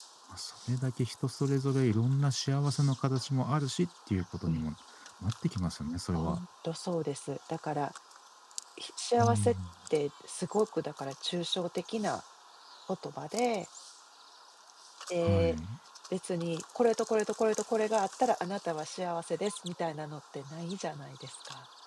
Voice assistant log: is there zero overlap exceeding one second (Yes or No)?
Yes